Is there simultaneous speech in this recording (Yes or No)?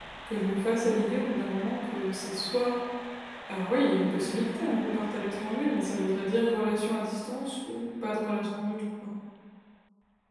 No